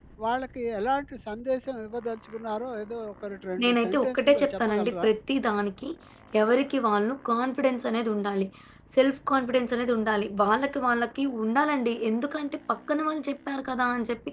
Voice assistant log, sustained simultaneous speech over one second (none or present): present